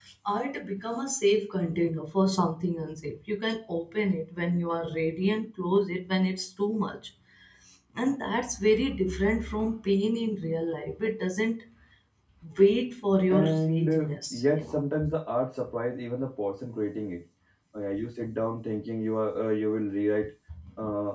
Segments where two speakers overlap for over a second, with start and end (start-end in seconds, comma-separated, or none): 13.3-14.8